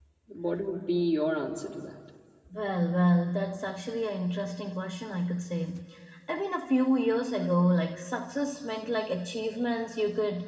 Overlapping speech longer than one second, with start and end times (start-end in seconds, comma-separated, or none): none